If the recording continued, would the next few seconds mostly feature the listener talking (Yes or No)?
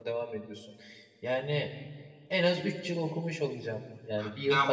Yes